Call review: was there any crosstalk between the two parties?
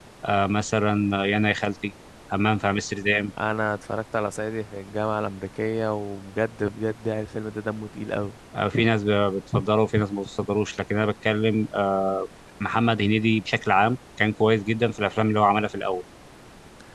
No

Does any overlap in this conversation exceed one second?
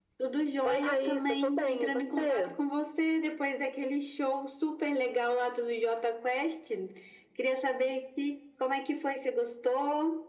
Yes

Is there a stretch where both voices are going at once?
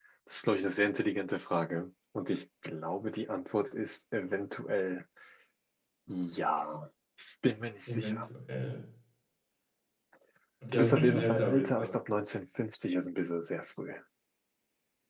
Yes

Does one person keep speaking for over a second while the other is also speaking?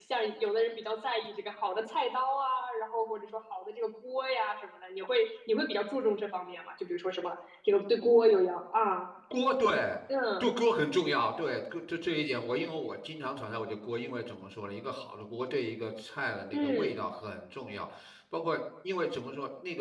No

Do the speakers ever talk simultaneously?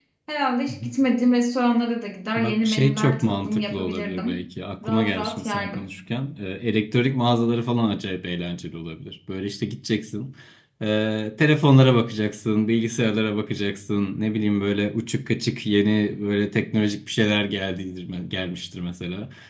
Yes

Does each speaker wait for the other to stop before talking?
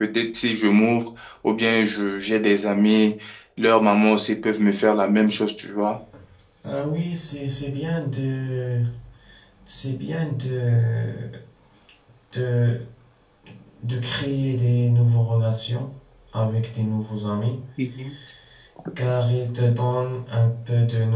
Yes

